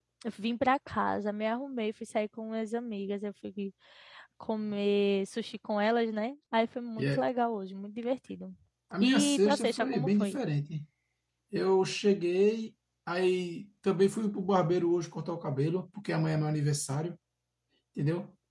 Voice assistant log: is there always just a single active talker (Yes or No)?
No